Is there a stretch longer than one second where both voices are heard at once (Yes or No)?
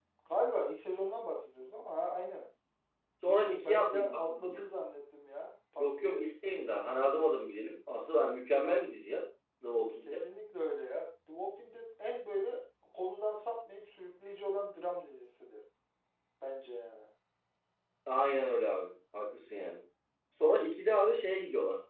Yes